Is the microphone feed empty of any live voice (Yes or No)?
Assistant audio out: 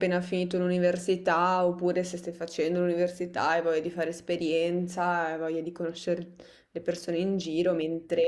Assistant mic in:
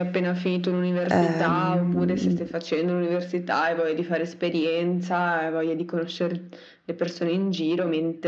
No